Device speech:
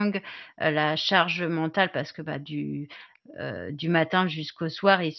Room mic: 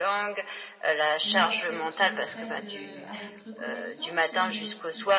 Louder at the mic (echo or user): echo